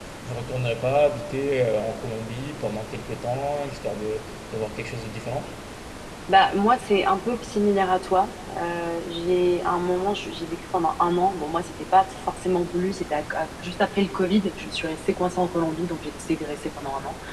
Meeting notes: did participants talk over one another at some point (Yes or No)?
No